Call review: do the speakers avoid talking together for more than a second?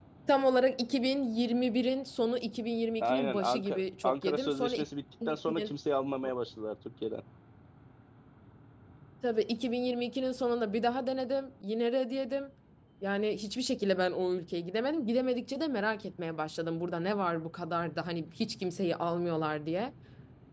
No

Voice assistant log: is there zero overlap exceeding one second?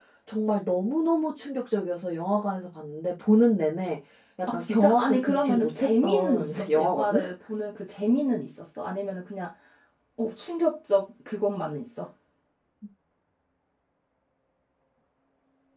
No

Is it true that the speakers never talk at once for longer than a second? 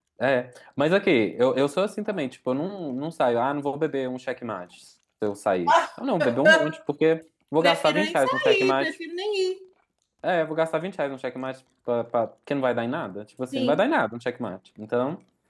No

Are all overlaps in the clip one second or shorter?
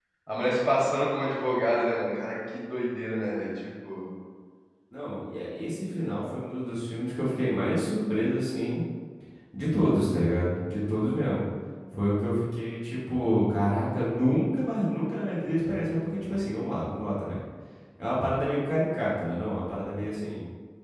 Yes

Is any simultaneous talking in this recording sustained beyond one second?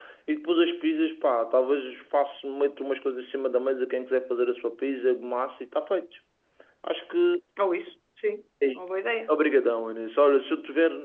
No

